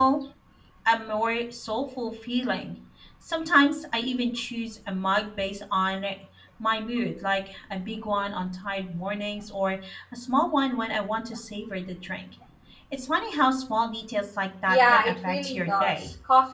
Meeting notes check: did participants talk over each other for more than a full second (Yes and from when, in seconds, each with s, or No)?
Yes, from 14.7 s